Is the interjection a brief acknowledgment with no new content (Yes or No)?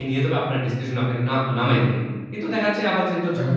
Yes